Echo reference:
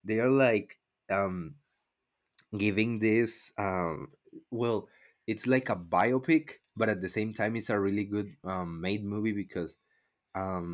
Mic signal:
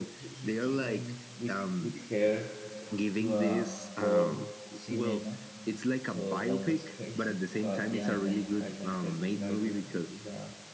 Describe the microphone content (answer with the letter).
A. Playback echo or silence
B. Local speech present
B